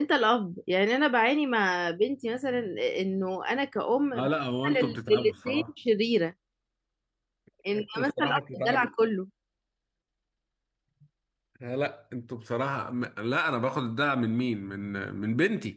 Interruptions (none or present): present